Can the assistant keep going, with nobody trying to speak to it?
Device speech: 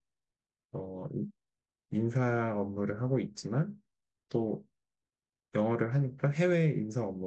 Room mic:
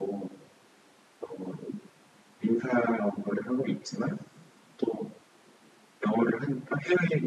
Yes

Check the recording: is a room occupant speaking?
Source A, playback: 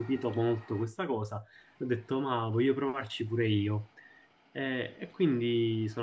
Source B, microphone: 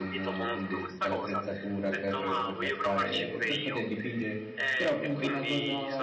Yes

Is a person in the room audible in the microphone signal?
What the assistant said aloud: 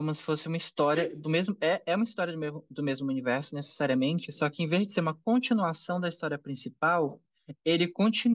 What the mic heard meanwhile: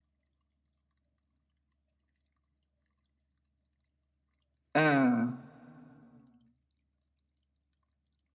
Yes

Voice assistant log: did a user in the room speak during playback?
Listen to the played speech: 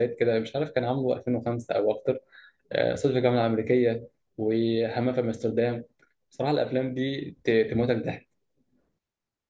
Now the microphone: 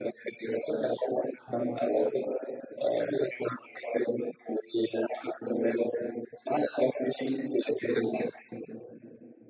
No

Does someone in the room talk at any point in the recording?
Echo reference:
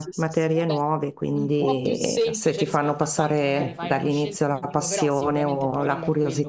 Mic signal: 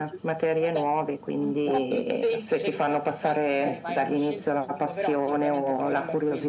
No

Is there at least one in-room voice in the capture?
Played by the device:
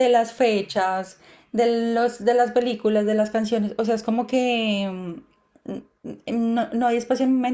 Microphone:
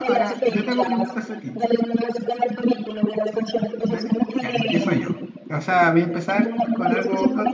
Yes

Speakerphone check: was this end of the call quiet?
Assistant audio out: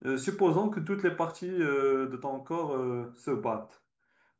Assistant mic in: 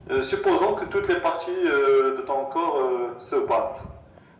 Yes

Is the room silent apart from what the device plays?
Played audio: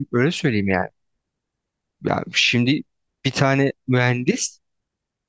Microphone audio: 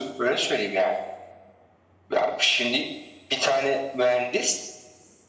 Yes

